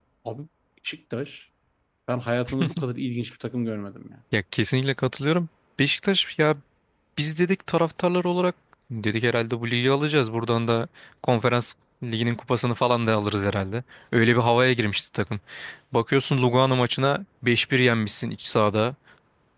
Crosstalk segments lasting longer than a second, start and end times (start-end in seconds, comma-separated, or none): none